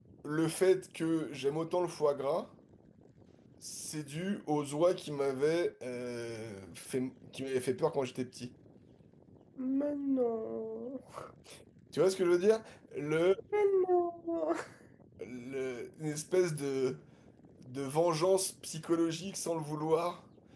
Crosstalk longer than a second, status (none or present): none